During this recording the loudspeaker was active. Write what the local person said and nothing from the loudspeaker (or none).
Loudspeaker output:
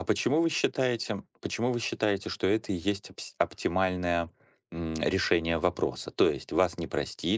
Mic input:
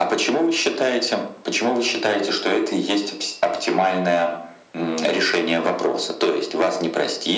none